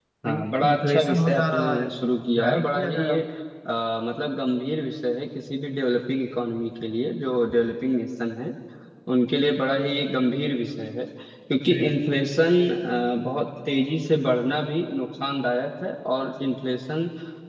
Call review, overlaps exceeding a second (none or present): present